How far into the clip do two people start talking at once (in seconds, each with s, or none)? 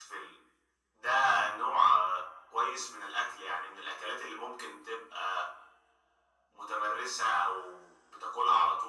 none